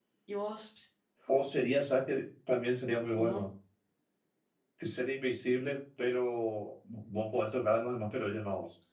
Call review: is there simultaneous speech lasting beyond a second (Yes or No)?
No